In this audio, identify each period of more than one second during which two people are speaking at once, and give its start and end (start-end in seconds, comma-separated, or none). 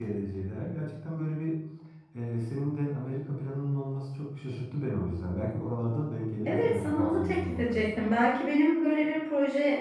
6.5-8.0